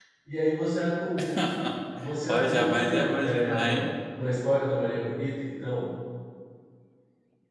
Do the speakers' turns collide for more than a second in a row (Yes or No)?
Yes